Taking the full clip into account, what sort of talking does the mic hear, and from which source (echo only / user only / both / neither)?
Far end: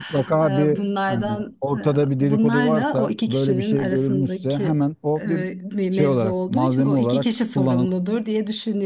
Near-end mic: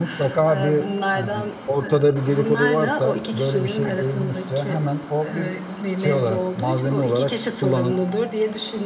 echo only